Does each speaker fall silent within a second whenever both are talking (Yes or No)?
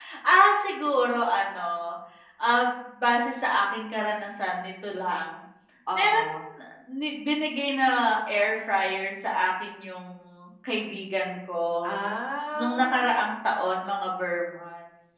Yes